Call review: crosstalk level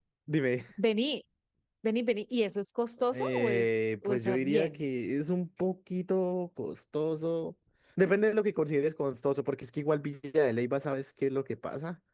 present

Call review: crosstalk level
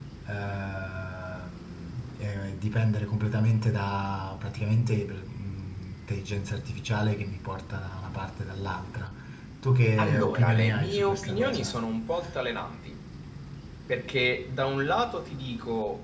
present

